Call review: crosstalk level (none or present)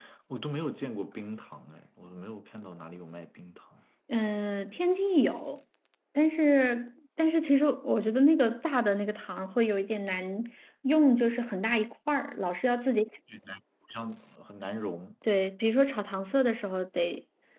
none